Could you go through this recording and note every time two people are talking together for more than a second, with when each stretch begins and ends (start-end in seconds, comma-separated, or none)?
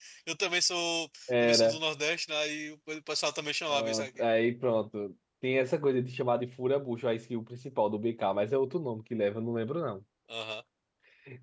none